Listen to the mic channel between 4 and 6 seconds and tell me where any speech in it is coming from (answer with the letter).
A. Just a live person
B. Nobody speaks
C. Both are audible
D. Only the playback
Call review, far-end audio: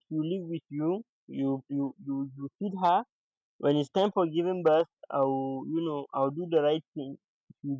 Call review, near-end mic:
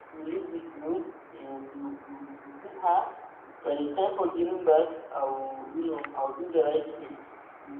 D